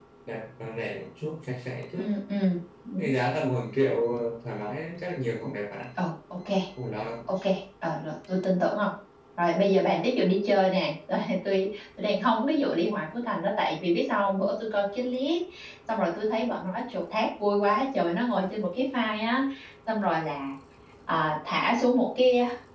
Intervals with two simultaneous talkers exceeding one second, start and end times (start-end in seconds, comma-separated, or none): none